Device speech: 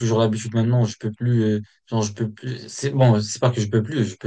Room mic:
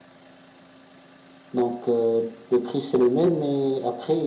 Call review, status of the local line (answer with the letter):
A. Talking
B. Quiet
A